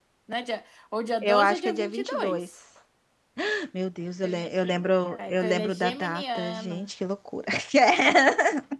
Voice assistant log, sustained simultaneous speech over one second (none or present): present